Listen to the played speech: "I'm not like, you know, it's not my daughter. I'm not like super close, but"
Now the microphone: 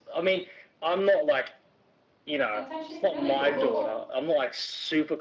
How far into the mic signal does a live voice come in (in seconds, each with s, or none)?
2.5 s